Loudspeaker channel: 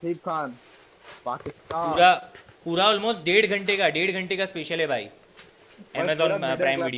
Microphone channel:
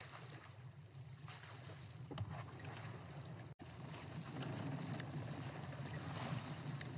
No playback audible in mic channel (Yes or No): Yes